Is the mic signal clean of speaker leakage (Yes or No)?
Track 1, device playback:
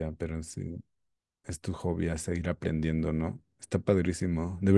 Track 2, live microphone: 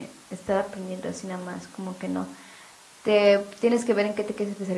Yes